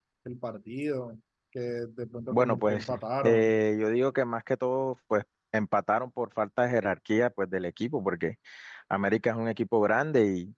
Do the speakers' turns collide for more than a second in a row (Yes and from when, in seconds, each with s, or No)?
Yes, from 2.3 s